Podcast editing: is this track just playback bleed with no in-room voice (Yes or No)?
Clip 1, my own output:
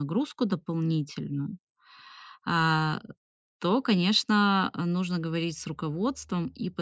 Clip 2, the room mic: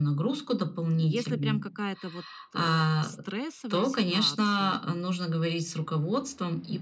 No